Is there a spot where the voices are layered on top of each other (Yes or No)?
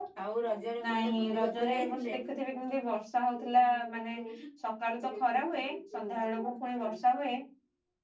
Yes